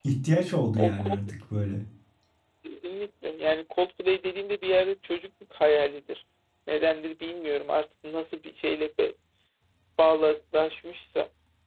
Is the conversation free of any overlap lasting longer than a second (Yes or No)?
Yes